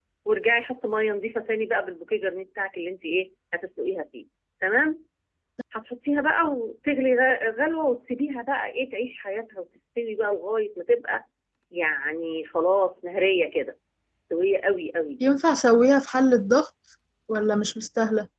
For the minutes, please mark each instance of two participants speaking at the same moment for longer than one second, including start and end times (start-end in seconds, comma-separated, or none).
none